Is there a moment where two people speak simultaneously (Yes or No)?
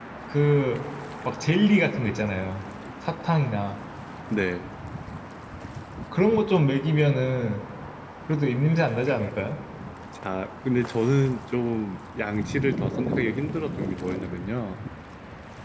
No